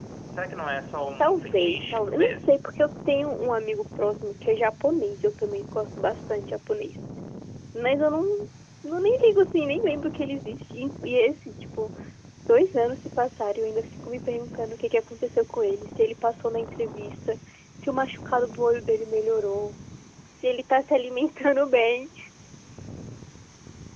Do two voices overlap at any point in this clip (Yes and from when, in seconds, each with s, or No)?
Yes, from 1.2 s